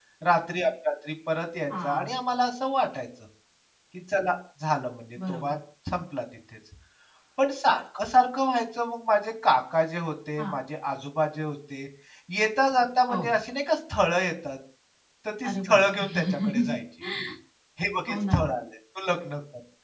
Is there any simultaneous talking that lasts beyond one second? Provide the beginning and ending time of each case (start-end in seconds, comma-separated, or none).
15.4-16.8